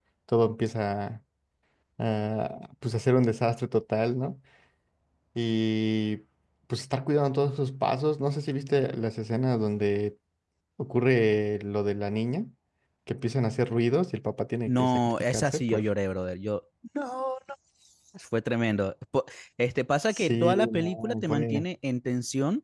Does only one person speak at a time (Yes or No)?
No